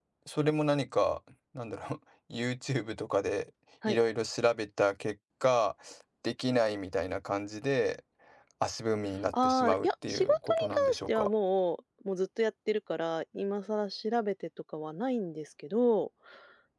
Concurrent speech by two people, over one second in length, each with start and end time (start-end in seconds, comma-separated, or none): 9.3-11.3